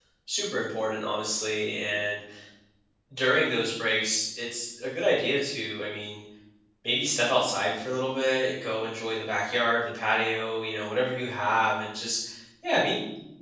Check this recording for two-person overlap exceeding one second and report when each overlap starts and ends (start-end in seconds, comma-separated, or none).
none